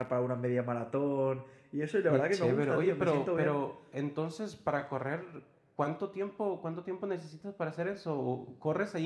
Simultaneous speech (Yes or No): Yes